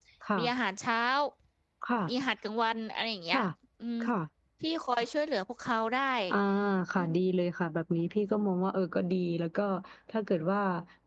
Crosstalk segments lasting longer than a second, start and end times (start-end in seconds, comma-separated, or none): none